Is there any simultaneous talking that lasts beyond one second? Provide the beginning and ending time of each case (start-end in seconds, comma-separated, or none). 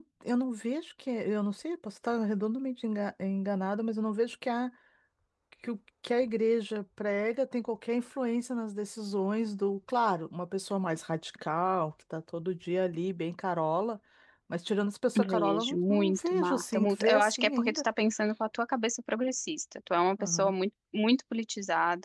15.2-17.8